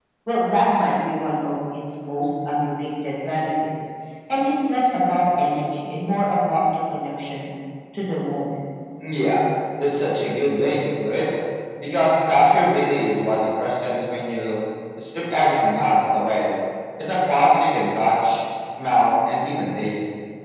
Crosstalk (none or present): none